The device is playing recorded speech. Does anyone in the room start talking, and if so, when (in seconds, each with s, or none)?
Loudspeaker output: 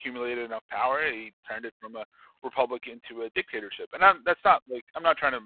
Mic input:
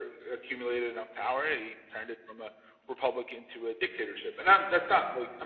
none